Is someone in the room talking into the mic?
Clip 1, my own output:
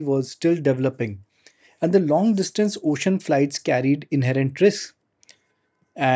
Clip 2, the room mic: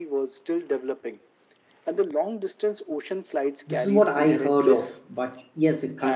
Yes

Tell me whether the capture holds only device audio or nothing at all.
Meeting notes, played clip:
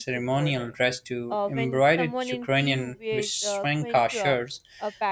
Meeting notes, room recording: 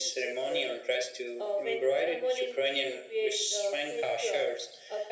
Yes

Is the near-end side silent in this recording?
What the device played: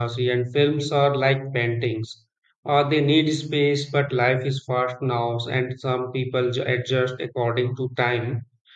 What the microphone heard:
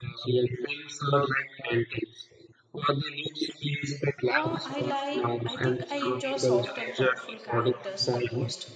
No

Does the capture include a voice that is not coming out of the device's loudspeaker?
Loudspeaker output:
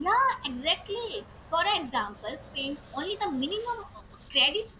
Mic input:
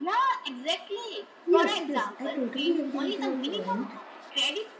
Yes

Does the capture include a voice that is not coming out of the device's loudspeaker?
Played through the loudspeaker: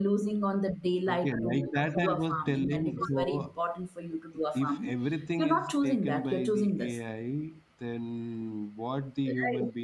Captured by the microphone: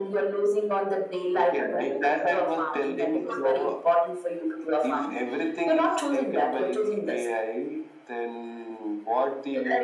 No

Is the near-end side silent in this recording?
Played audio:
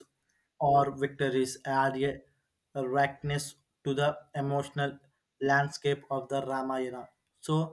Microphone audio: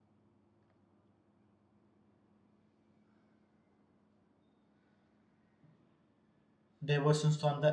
No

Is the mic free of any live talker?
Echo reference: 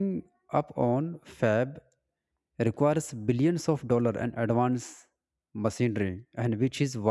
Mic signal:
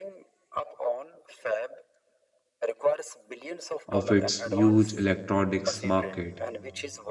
No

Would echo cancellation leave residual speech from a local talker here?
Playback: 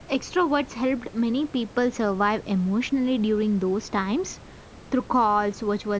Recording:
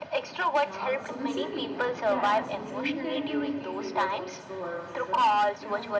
Yes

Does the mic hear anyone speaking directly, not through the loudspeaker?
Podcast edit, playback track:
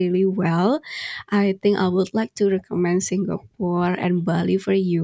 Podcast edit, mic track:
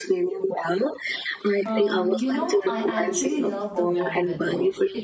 Yes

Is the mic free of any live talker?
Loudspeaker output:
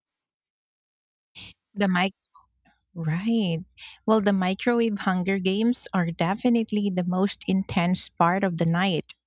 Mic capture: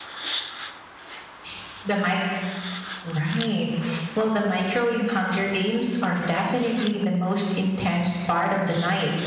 Yes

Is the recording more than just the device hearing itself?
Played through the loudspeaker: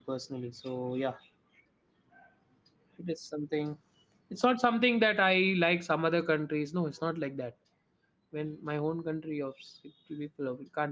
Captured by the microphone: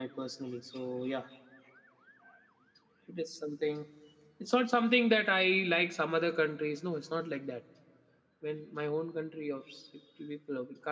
No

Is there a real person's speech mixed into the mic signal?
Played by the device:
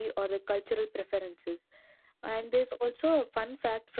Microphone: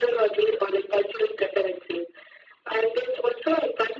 No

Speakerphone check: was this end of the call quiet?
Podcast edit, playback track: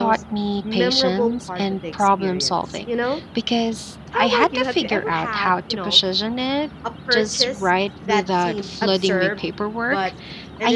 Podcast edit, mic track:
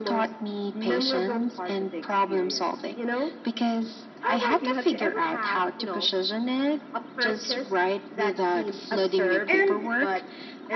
No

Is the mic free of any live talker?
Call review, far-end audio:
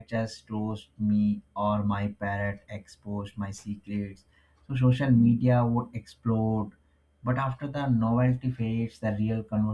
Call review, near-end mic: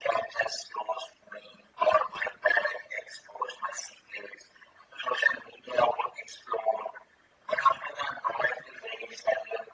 Yes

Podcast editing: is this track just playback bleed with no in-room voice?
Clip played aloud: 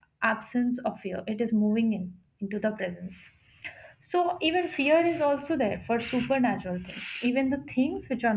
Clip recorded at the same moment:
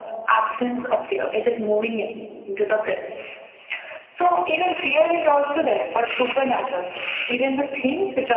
Yes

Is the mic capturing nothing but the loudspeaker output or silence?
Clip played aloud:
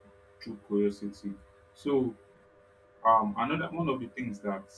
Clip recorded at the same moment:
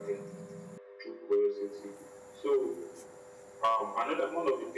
Yes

